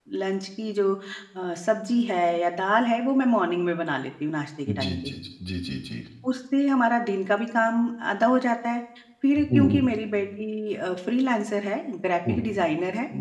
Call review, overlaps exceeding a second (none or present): none